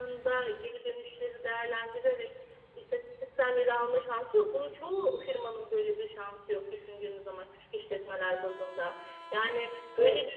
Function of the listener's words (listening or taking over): listening